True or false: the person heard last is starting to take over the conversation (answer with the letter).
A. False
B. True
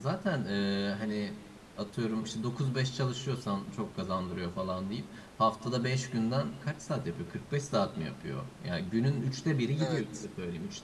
A